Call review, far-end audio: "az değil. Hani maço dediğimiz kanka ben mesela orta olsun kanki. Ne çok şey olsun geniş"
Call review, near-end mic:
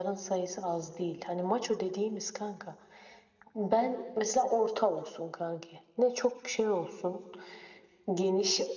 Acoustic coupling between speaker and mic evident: Yes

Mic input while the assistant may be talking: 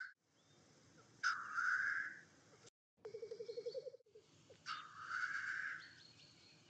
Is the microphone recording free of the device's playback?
Yes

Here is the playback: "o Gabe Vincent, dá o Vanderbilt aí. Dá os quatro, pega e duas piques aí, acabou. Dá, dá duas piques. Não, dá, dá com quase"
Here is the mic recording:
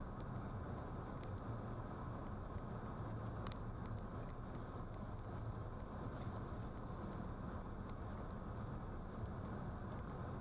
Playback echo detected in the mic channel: No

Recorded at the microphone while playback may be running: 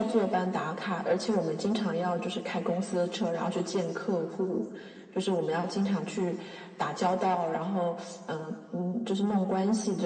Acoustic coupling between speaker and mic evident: Yes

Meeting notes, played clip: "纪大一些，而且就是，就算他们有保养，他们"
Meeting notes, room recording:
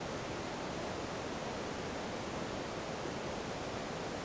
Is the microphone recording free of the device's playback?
Yes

